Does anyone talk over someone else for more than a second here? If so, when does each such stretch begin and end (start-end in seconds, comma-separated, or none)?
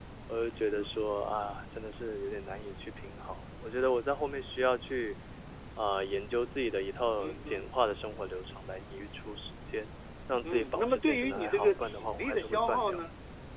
10.4-13.0